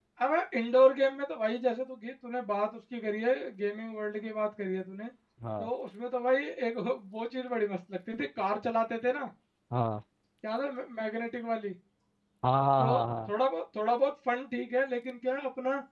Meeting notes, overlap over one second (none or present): none